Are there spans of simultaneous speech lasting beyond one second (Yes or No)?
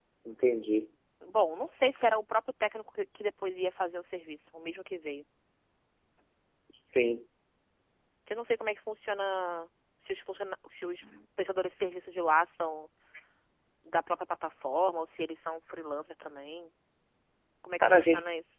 No